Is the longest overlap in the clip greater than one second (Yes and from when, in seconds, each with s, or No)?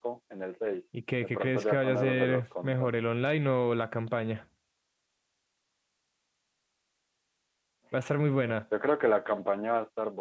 Yes, from 1.2 s